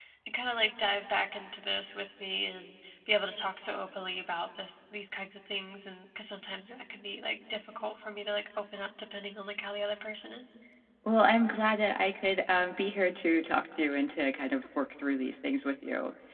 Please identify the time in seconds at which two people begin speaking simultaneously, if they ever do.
none

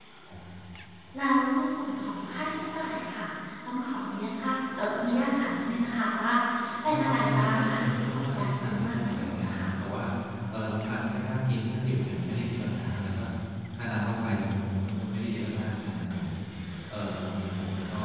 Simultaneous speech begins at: 6.9 s

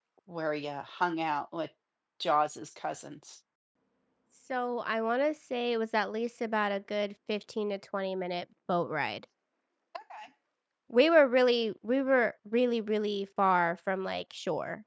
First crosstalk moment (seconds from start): none

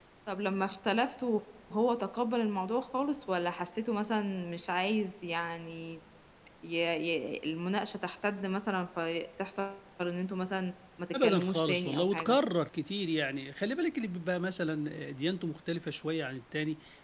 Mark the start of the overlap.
11.1 s

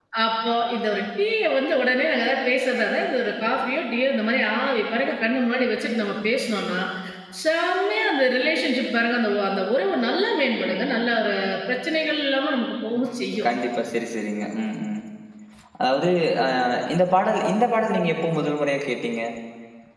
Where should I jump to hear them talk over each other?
none

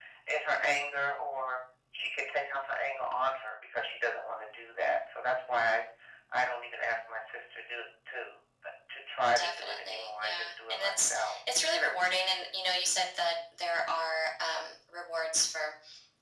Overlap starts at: 9.4 s

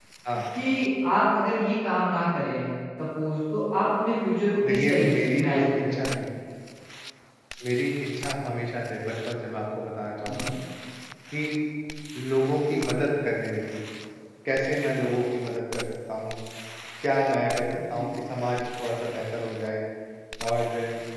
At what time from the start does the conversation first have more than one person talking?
4.7 s

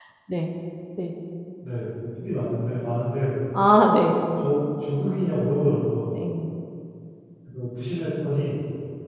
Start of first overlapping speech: none

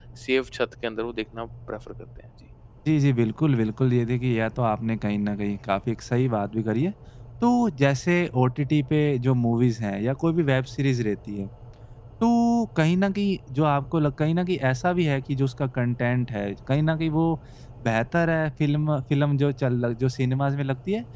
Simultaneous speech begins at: none

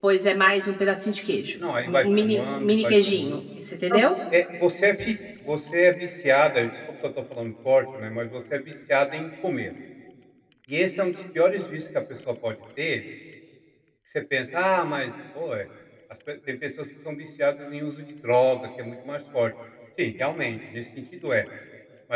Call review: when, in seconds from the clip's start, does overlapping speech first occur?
1.6 s

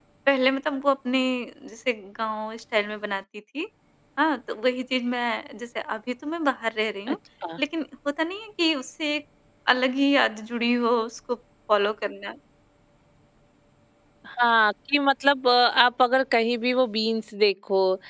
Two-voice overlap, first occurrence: none

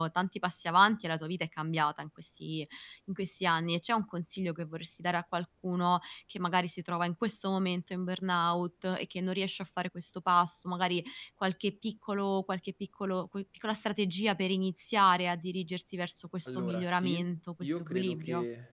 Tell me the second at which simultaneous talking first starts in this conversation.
16.4 s

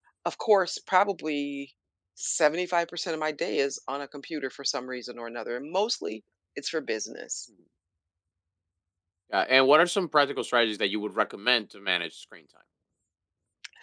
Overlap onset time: none

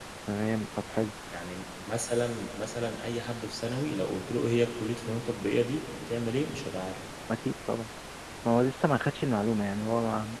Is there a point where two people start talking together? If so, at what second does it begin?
none

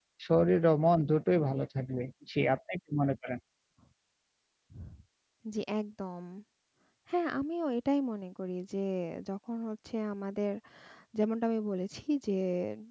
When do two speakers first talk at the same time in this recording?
none

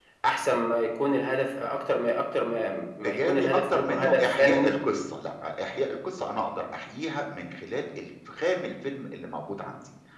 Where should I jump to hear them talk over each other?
3.0 s

